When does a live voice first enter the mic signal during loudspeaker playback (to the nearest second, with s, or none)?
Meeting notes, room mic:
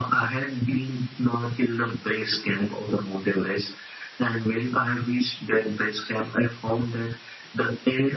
none